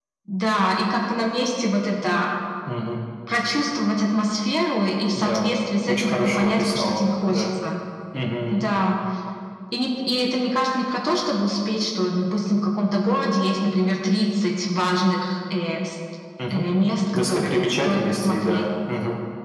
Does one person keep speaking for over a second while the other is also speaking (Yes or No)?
Yes